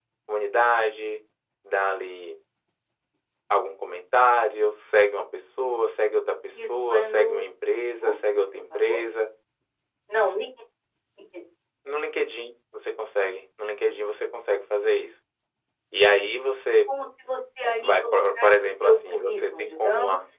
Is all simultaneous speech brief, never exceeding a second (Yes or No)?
No